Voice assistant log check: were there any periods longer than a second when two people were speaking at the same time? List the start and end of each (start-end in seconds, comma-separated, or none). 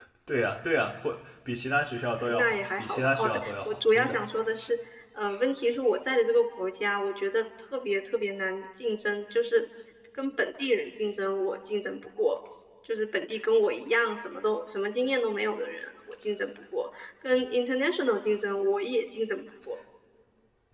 2.3-4.2